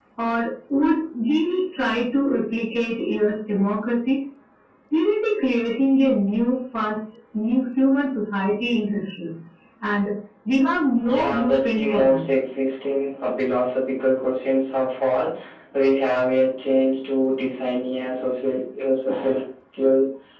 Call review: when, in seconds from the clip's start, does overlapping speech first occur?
11.1 s

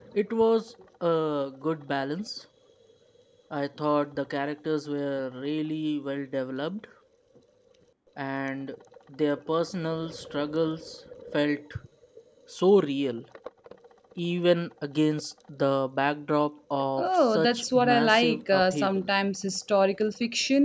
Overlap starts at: 17.0 s

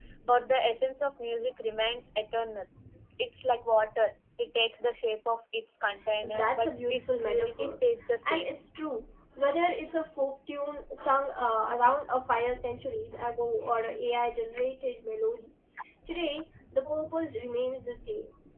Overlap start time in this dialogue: 6.2 s

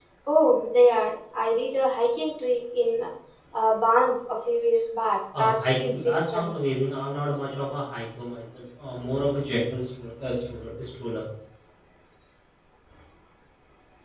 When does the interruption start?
5.3 s

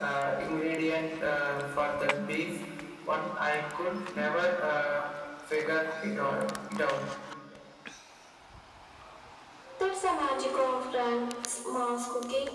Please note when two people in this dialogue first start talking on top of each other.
none

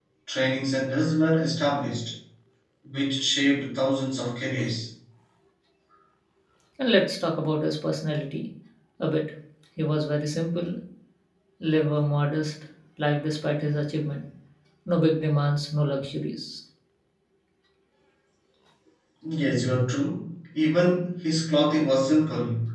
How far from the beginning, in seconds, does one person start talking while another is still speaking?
none

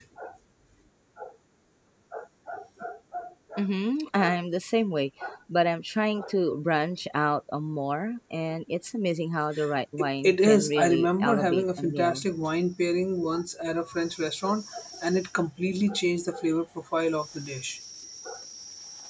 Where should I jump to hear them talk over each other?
10.0 s

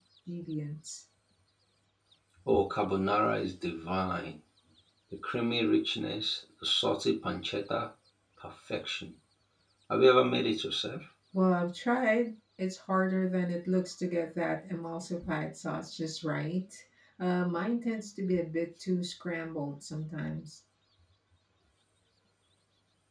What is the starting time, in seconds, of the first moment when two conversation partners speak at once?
none

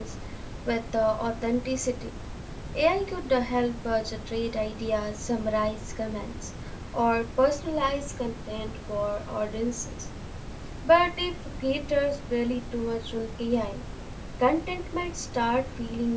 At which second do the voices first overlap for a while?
none

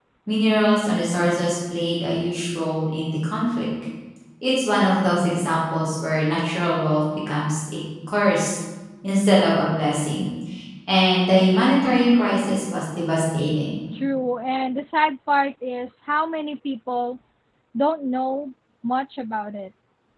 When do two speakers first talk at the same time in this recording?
none

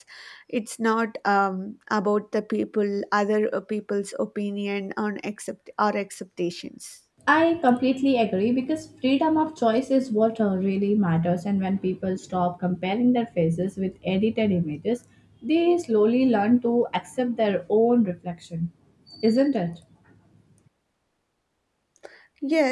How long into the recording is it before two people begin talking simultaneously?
none

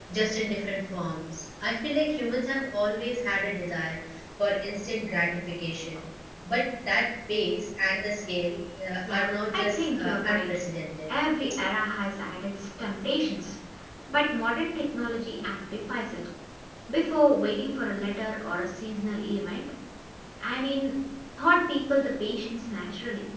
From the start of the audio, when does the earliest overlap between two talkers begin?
9.0 s

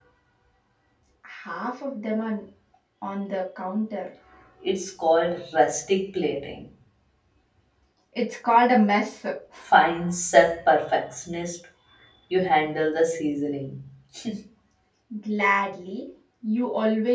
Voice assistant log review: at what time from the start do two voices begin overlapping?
none

